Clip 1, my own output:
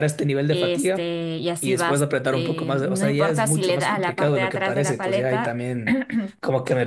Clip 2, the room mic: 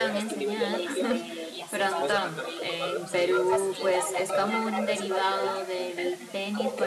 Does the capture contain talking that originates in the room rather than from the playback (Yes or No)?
Yes